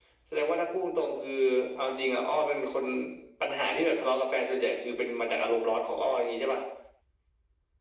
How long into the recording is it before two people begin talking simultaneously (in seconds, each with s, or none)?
none